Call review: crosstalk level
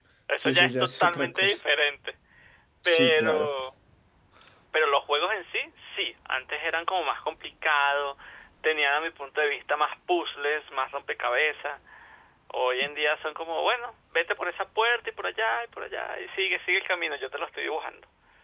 present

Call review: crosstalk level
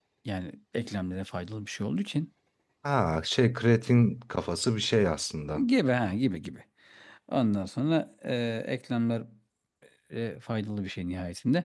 none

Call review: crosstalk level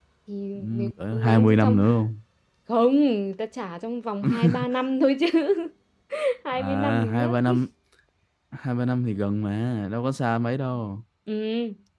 present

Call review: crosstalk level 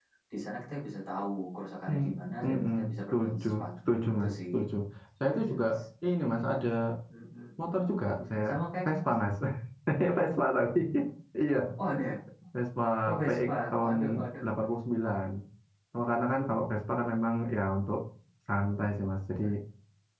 present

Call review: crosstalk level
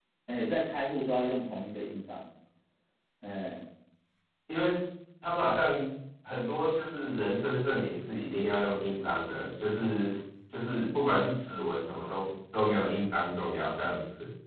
none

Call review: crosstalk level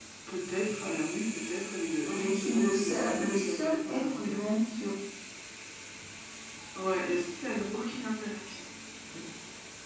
present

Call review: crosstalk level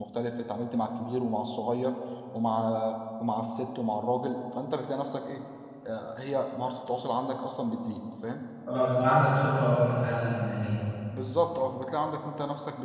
none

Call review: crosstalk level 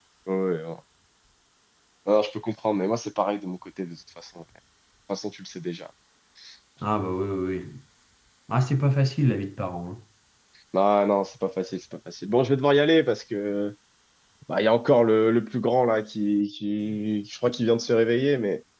none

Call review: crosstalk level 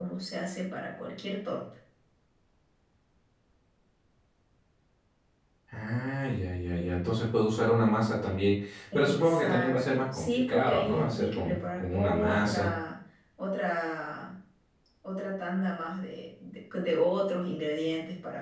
present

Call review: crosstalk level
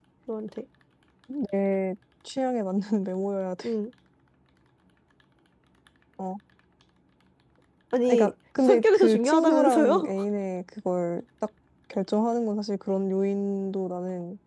present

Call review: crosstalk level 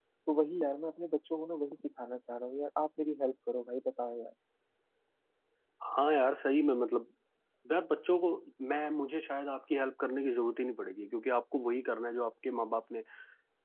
none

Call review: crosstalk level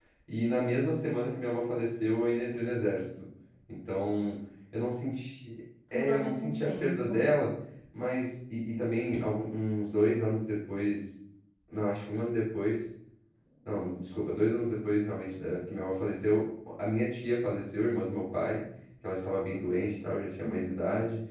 present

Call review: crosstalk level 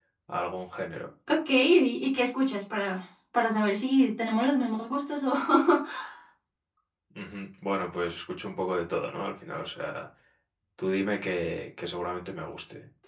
none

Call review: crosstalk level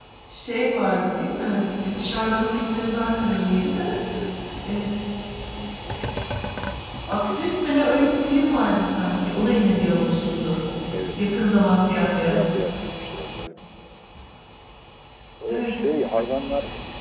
present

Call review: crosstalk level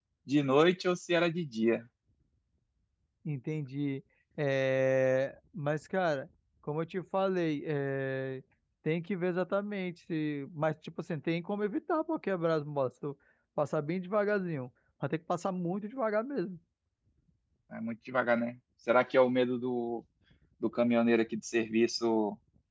none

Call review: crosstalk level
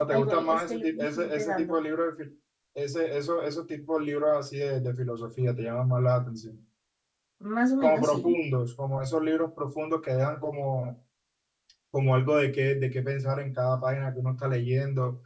present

